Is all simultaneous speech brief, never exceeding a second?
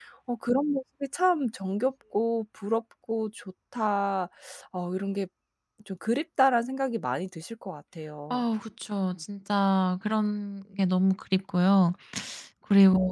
Yes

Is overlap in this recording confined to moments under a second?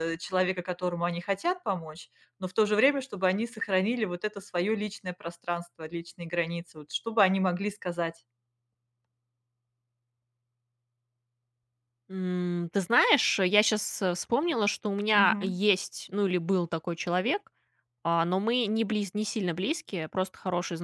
Yes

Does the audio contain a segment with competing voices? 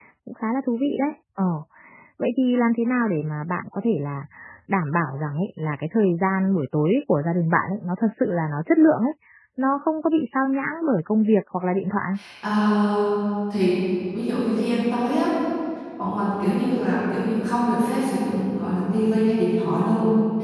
No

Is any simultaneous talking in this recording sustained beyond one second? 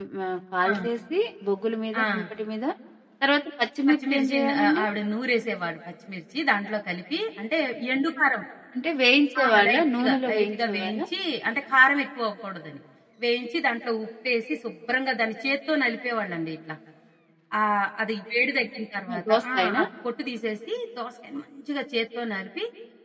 Yes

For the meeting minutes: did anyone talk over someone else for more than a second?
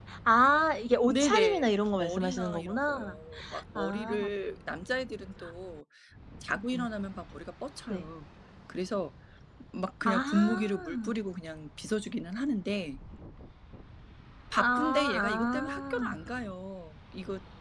Yes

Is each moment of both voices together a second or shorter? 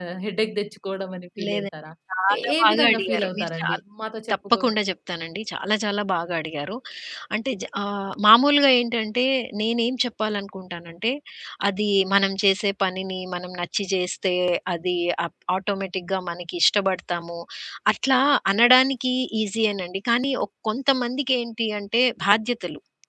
No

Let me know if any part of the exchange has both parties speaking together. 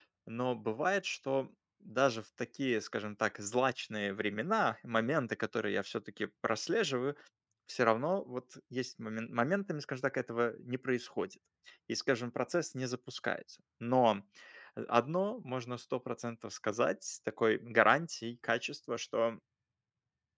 No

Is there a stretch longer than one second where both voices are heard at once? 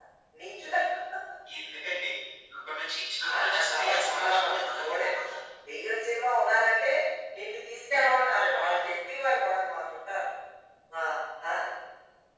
Yes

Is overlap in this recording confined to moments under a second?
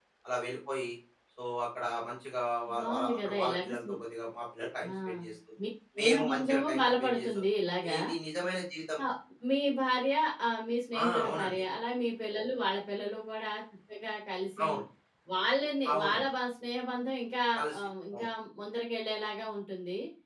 No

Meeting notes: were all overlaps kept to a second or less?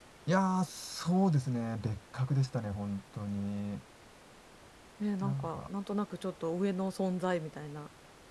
Yes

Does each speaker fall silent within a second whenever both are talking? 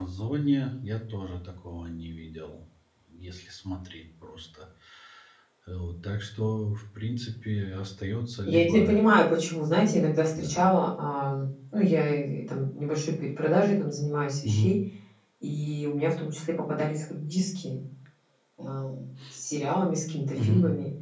Yes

